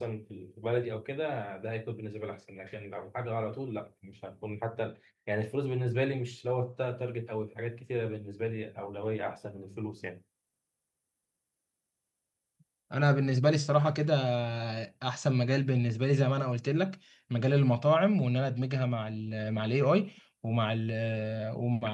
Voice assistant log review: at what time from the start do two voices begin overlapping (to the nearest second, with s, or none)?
none